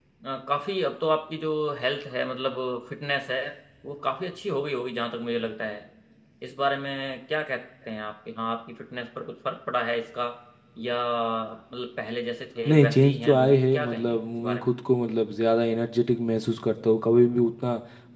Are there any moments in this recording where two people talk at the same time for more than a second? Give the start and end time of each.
12.7-14.7

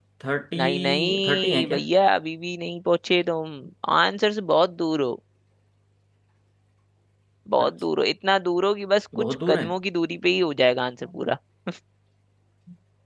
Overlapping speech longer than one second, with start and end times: 0.6-1.8

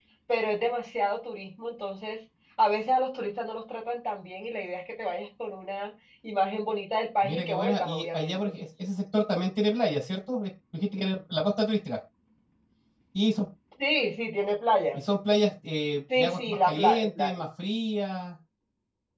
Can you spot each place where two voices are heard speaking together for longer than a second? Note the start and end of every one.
7.2-8.6, 16.2-17.4

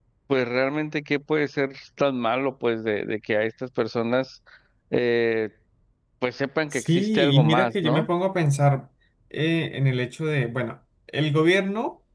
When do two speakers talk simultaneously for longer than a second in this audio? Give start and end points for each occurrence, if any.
6.7-8.1

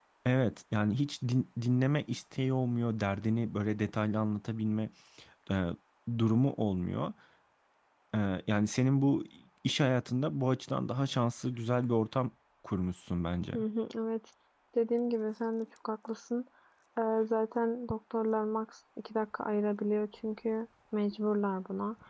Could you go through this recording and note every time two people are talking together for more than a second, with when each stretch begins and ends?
none

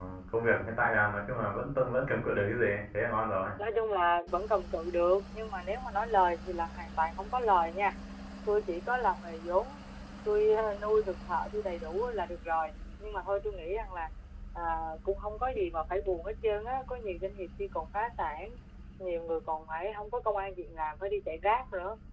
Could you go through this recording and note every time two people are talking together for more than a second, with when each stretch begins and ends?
none

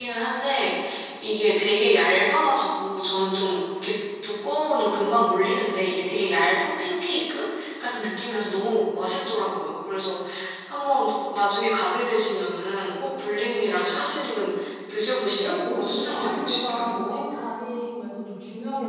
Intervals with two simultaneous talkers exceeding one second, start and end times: 15.4-16.9

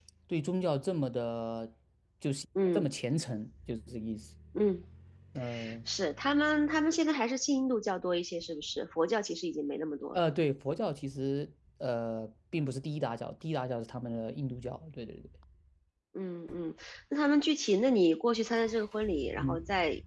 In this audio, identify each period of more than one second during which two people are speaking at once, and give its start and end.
none

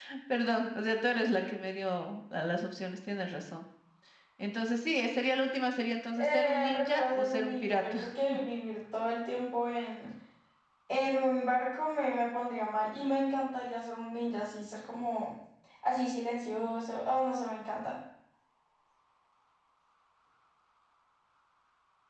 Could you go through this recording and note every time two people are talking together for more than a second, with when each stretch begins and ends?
6.2-8.4

